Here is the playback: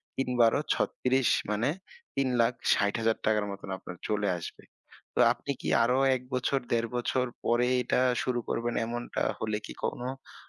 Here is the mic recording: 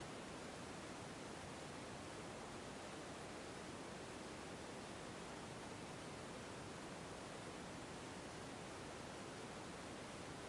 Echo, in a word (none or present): none